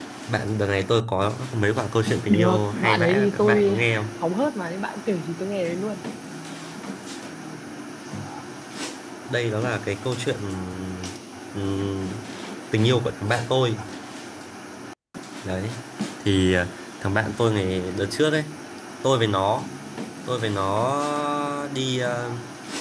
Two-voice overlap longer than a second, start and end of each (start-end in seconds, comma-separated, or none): 2.3-3.8